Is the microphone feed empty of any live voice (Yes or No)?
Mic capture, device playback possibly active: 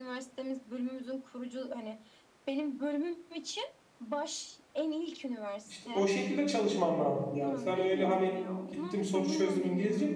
No